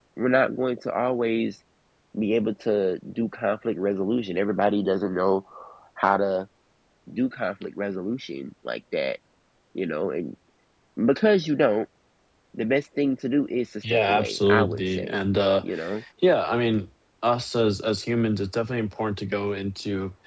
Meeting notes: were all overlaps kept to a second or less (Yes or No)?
No